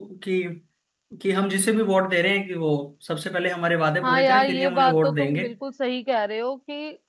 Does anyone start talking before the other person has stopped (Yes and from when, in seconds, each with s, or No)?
Yes, from 4.0 s